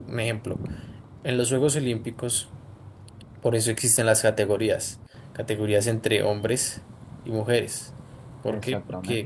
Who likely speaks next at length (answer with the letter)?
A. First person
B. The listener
A